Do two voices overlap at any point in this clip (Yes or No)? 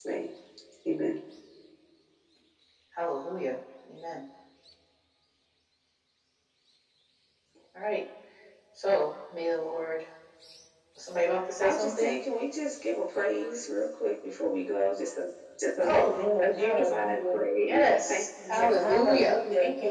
Yes